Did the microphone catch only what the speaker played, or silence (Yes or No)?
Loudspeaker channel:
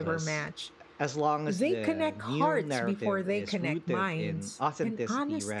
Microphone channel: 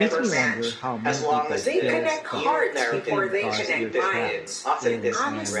No